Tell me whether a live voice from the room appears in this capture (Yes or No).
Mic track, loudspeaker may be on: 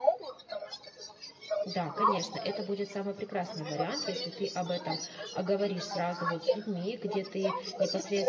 Yes